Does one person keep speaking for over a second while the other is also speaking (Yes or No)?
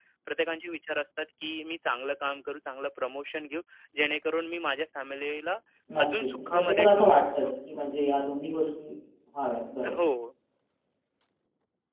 Yes